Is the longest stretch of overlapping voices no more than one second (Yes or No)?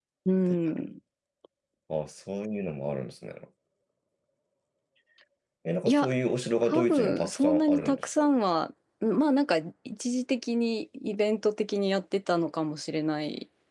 No